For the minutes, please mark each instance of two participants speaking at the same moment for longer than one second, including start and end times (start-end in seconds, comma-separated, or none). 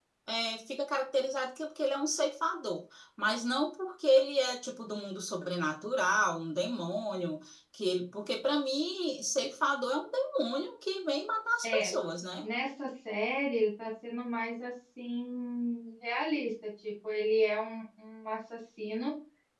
none